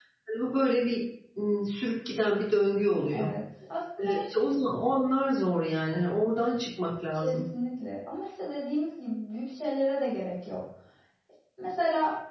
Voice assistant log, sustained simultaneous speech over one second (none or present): none